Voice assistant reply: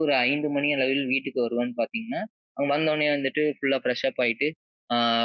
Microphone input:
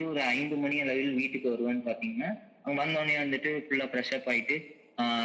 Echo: present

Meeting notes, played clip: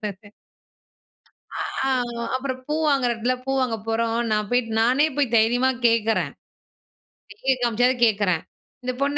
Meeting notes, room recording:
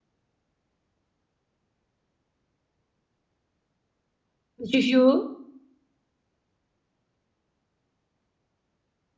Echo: none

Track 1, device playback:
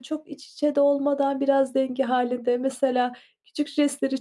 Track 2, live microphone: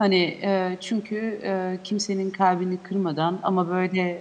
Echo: none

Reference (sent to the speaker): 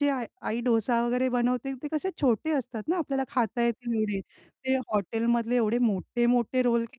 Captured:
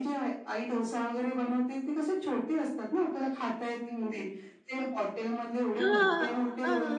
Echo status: present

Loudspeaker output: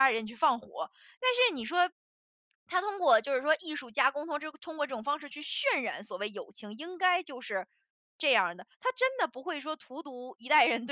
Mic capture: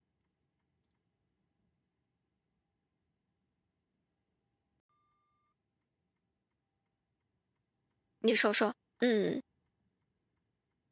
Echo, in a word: none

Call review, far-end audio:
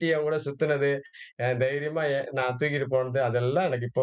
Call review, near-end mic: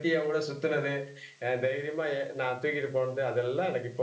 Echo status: present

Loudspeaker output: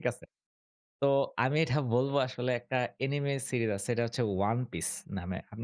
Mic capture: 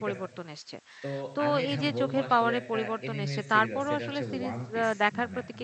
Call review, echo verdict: present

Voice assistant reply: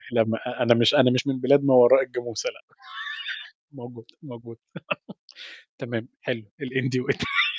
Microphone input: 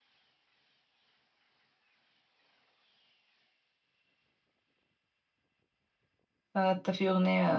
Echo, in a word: none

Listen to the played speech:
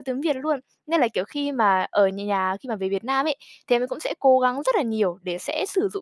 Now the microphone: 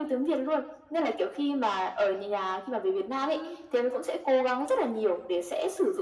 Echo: present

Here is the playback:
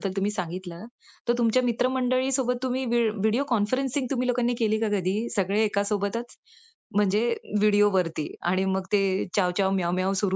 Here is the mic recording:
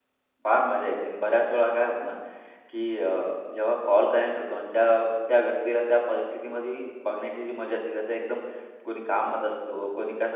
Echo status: none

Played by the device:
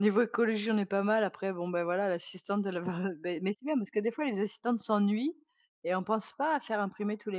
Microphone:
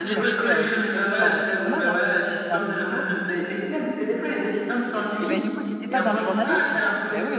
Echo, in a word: present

